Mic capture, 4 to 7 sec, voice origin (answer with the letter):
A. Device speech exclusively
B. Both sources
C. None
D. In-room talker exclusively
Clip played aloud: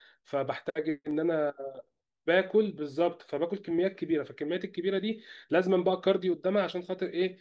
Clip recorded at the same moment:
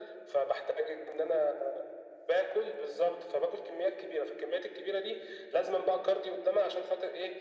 A